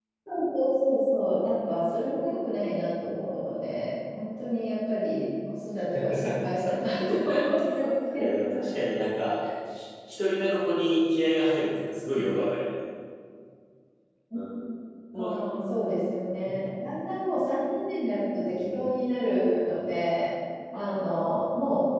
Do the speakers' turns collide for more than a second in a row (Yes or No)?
No